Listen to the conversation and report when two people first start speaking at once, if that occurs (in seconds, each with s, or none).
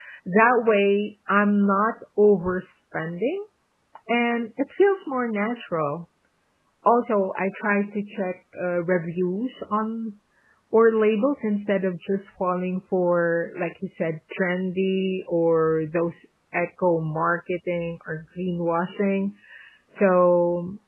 none